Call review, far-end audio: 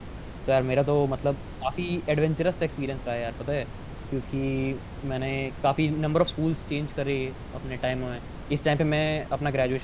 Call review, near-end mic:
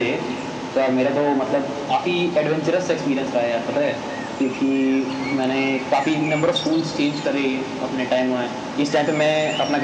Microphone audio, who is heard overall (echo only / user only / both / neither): echo only